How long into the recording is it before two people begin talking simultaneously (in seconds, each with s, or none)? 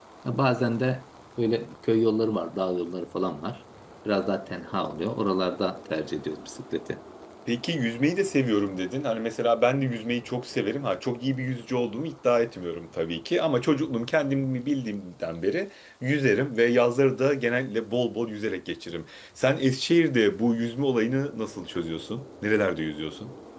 none